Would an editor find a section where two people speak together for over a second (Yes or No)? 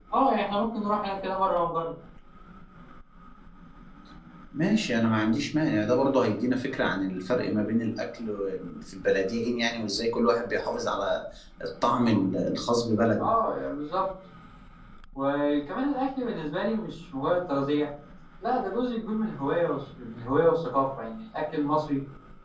No